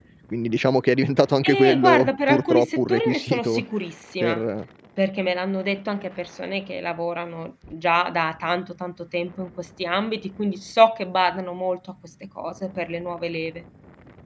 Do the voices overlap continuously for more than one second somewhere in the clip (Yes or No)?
Yes